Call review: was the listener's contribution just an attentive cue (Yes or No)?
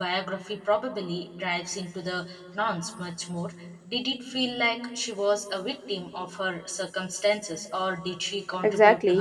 No